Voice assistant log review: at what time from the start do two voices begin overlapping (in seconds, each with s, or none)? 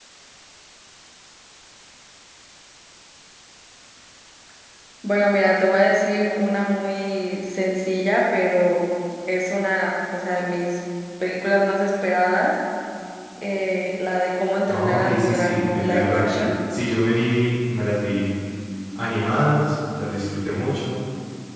14.7 s